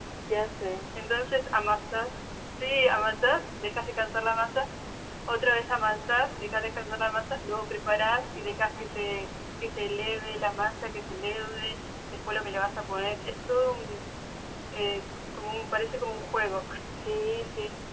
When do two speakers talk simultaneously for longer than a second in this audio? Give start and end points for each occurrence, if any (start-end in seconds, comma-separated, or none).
none